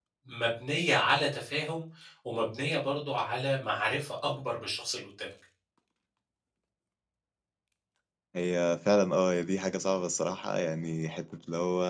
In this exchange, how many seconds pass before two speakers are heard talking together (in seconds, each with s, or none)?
none